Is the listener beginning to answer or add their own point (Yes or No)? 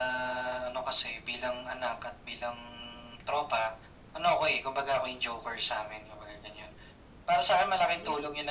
No